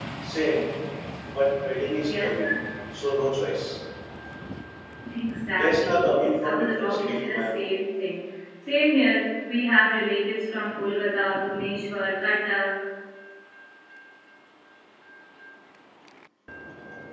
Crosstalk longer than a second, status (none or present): present